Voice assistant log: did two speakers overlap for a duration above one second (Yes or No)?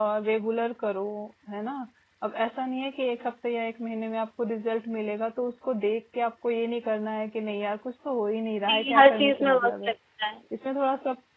Yes